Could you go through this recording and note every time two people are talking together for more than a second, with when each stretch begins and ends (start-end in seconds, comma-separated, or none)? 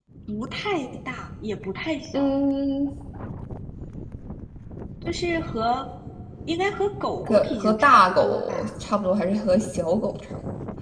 7.3-8.7